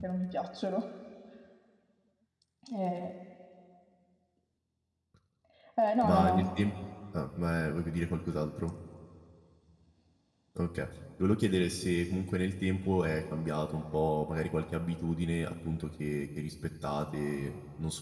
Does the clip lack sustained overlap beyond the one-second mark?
Yes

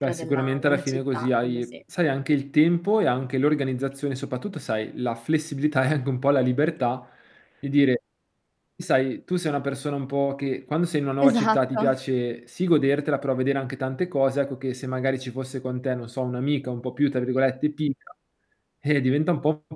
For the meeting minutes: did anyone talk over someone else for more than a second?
Yes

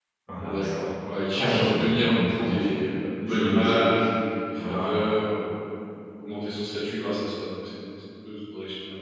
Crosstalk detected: Yes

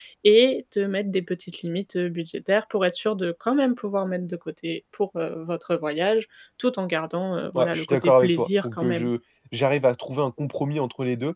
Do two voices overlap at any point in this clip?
Yes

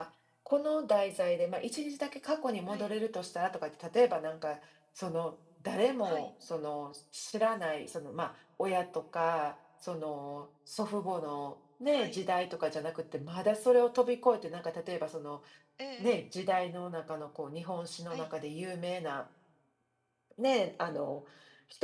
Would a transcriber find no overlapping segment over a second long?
Yes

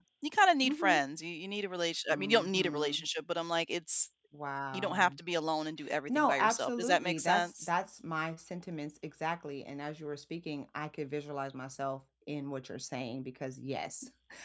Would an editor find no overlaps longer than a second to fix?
No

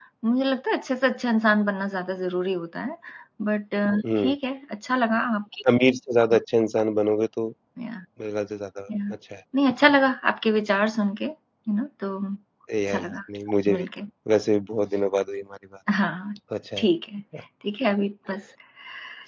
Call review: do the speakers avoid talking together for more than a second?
Yes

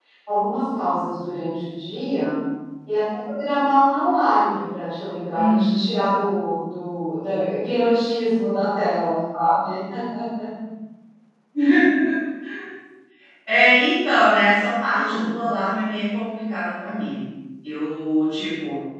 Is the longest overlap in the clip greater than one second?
No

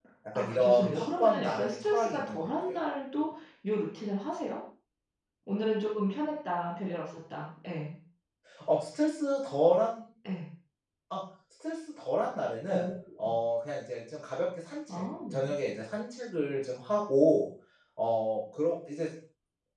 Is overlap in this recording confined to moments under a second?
No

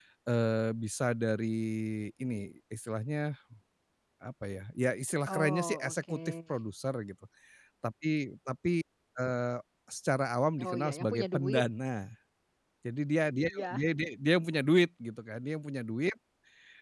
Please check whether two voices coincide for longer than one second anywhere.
Yes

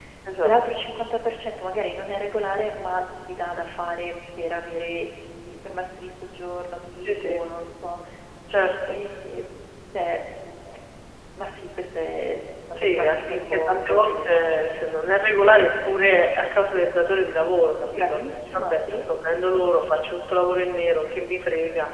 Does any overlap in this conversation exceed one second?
Yes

